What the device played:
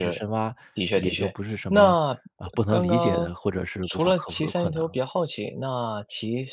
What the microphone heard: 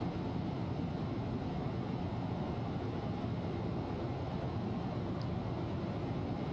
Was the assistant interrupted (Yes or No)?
No